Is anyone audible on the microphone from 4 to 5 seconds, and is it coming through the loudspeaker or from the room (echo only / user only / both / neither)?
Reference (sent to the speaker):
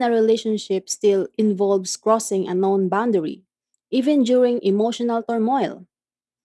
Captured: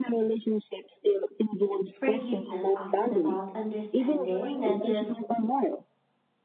both